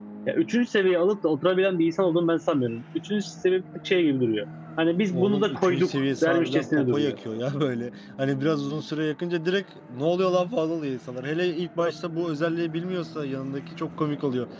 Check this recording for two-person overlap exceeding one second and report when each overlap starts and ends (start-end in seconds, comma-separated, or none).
5.1-7.2